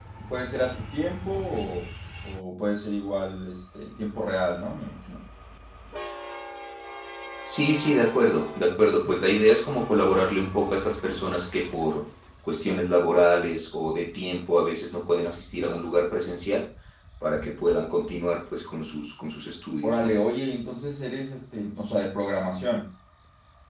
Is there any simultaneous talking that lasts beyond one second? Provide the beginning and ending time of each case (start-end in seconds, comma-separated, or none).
none